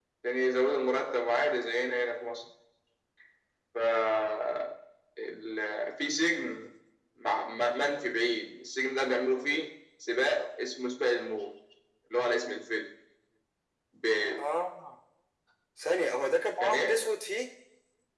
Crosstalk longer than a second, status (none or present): none